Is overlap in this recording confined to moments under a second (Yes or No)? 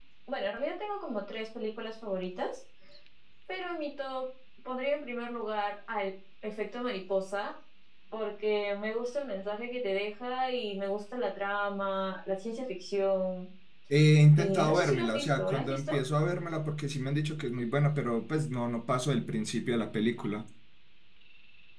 No